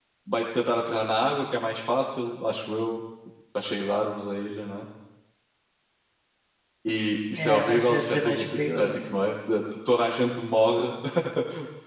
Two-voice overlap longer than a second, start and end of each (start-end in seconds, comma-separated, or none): 7.4-8.9